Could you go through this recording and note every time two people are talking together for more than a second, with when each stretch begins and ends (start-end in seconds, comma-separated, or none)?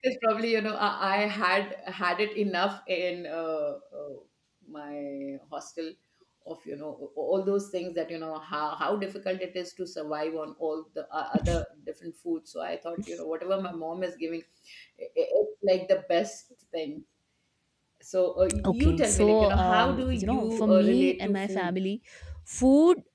18.6-21.8